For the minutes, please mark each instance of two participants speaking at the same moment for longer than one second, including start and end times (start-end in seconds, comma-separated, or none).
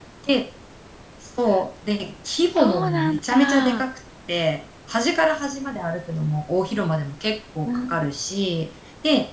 2.6-3.8